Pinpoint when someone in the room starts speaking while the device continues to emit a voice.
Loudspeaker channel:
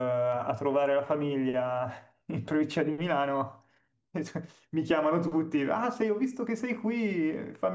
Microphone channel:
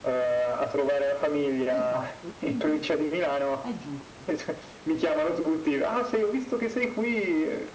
1.7 s

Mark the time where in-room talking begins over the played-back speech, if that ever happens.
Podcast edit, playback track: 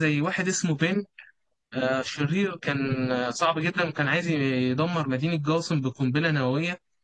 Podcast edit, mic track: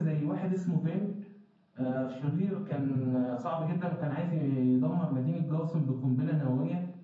none

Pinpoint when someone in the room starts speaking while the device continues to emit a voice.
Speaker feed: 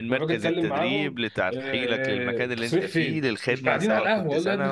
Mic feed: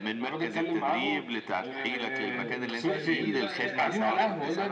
2.2 s

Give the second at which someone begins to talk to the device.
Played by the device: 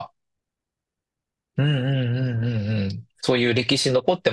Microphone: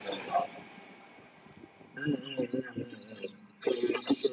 none

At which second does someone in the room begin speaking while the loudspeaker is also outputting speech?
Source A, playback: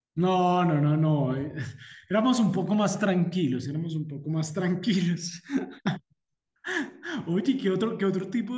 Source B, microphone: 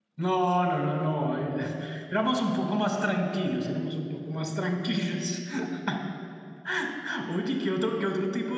none

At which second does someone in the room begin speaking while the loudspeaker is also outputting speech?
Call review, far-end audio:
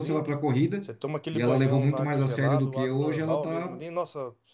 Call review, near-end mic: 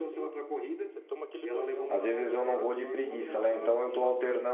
1.9 s

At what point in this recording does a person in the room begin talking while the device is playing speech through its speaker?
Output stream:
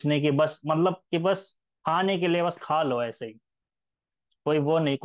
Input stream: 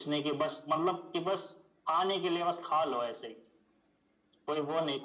none

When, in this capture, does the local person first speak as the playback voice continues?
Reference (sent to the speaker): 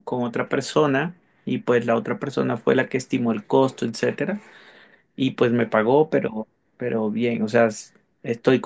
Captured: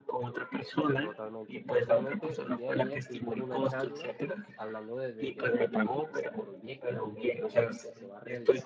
1.0 s

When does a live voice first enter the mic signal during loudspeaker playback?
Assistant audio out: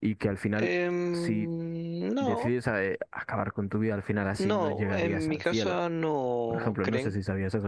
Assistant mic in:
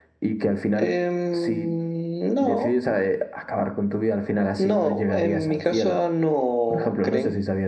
none

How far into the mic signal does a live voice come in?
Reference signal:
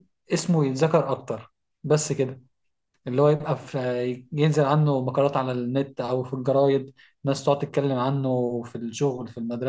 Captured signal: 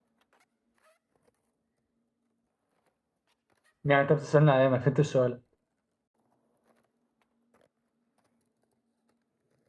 3.8 s

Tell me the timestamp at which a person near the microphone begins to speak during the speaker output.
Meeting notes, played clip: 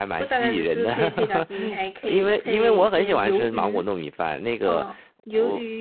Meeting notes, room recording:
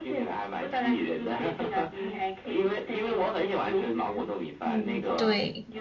4.6 s

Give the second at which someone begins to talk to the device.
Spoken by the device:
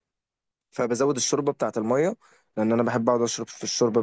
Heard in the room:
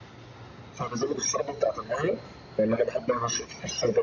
none

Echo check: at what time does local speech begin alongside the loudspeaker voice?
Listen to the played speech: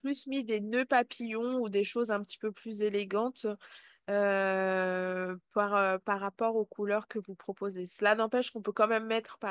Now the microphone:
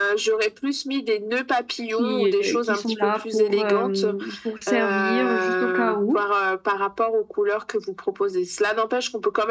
1.9 s

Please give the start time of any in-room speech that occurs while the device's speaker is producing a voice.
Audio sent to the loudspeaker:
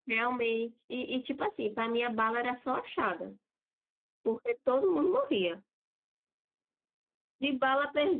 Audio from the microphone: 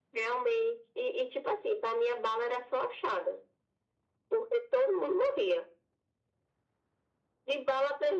none

